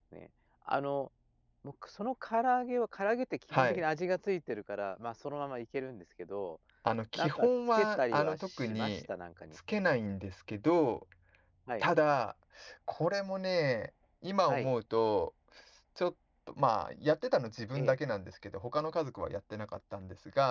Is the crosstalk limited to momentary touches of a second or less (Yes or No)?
No